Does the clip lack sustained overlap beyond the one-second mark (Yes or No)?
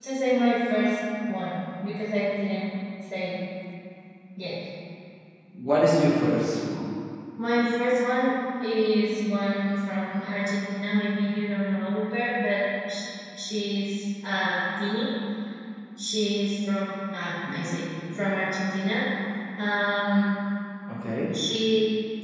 Yes